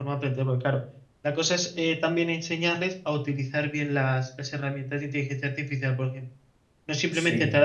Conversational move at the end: listening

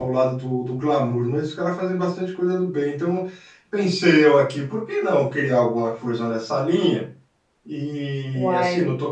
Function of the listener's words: listening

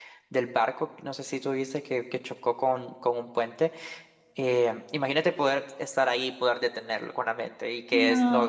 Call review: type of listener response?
taking over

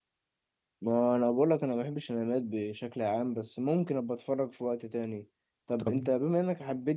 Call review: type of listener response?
listening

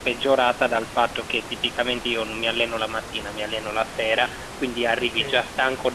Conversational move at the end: listening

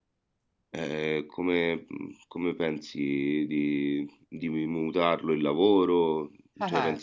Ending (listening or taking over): taking over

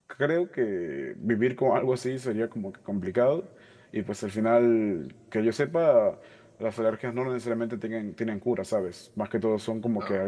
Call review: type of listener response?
listening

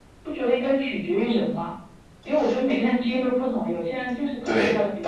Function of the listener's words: taking over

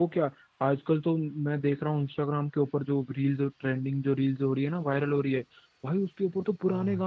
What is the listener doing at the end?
listening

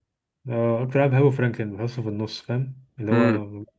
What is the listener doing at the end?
taking over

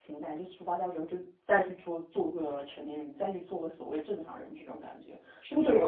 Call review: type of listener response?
taking over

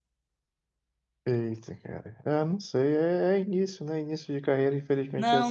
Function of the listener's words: taking over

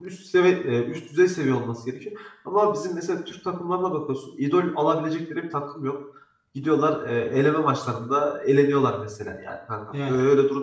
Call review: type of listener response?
listening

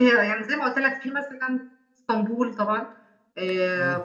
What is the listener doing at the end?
listening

